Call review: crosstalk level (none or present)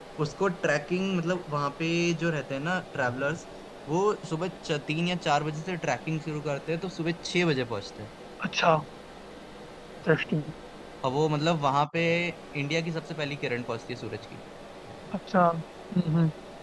none